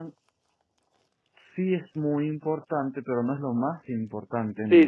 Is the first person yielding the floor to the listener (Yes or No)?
Yes